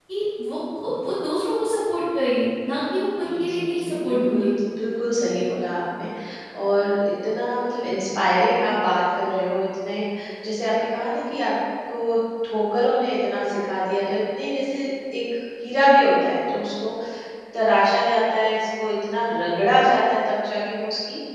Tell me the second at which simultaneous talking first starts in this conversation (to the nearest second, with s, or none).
3 s